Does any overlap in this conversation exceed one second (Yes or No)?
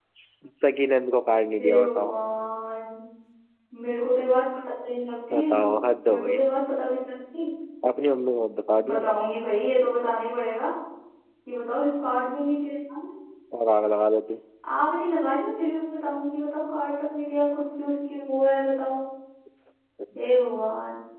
No